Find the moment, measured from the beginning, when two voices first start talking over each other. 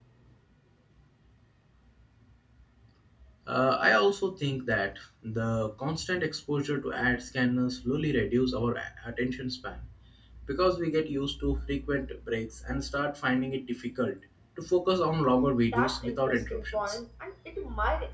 16 s

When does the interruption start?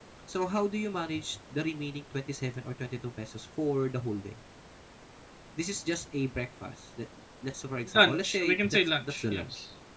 8 s

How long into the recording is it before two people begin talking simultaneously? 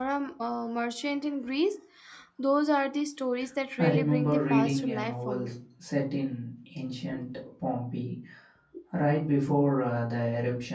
4 s

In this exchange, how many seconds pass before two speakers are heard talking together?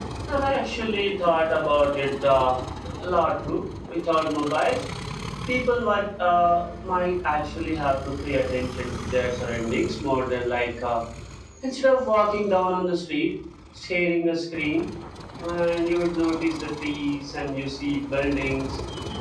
none

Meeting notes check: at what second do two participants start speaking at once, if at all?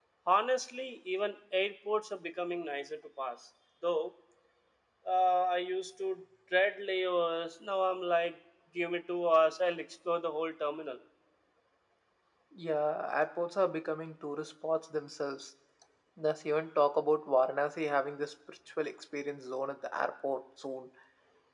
none

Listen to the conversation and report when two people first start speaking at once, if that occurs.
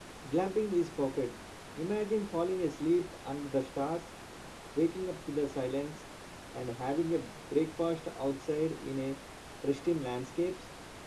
none

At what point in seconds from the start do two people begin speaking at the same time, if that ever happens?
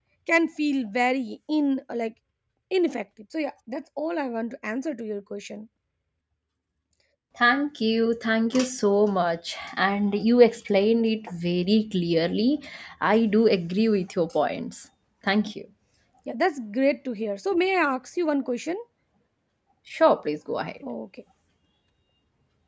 none

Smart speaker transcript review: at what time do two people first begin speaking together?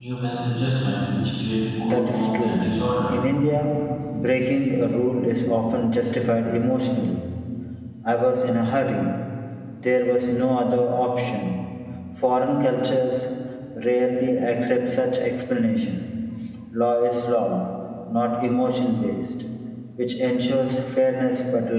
2 s

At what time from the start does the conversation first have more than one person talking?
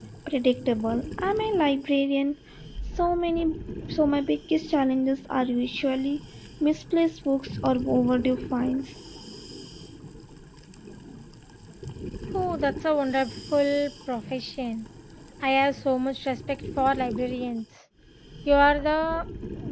none

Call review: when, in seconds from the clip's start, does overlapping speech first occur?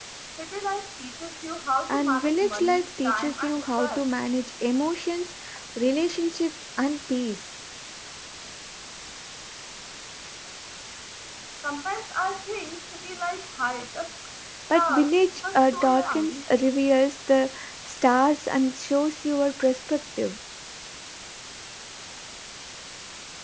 2 s

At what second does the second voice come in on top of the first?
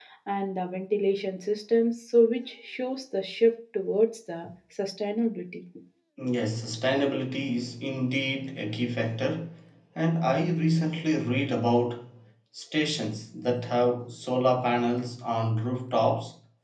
none

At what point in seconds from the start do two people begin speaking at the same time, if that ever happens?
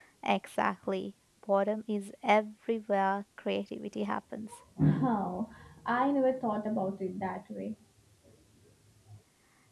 none

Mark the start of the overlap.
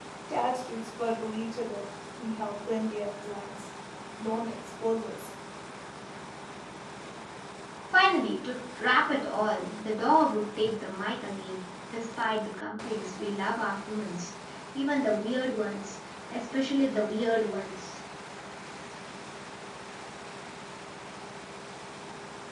none

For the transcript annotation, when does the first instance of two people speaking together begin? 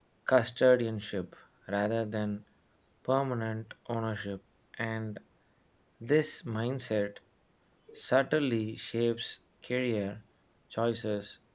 none

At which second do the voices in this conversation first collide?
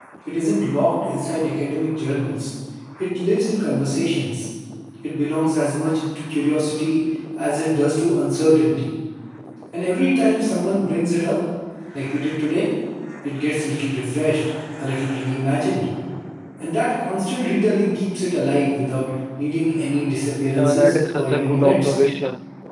21 s

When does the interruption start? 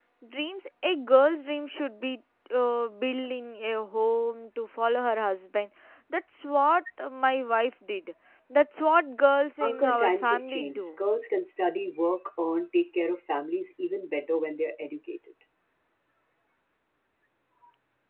10 s

